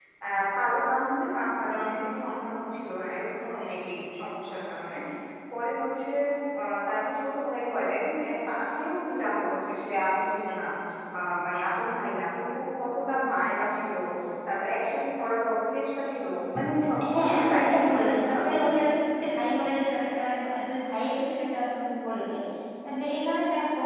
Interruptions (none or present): present